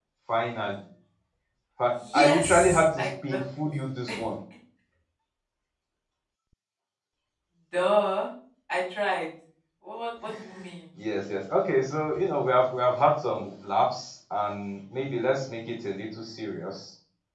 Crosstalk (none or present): present